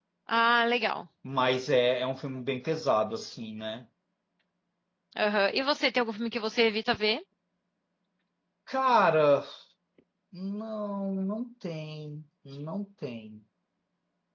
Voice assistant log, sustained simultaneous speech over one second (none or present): none